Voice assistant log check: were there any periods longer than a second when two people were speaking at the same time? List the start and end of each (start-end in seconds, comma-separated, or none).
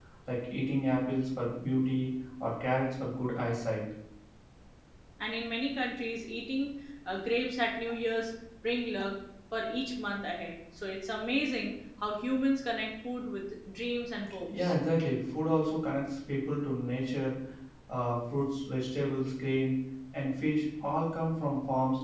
none